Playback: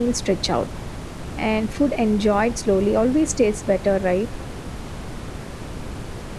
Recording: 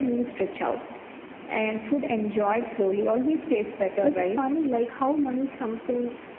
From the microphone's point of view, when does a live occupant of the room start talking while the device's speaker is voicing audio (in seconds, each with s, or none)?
4.0 s